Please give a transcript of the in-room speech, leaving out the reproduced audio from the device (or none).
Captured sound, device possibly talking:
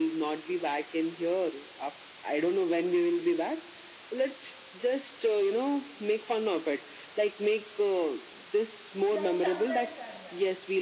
yeah, Shankaracharya.